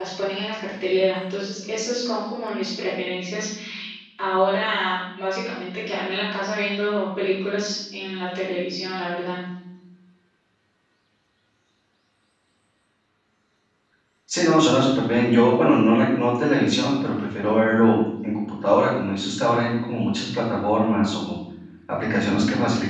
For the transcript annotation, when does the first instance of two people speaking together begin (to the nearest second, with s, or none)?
none